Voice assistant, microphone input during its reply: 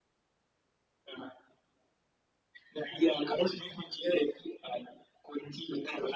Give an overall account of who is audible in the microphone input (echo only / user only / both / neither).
echo only